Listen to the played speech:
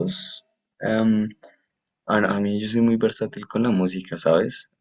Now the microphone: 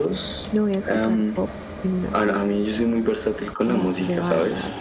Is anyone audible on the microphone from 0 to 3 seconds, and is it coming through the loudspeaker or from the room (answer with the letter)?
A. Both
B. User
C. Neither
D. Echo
A